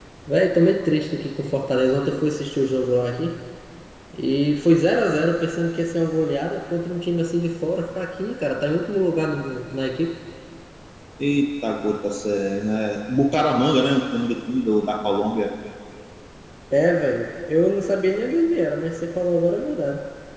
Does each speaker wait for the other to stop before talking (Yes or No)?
Yes